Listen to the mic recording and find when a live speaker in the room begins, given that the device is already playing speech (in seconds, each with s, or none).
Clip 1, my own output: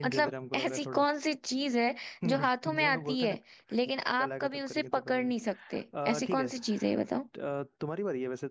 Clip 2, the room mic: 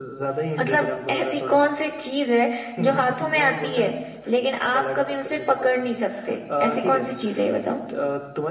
none